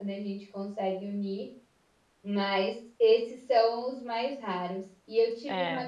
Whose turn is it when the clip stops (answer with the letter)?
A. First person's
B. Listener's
A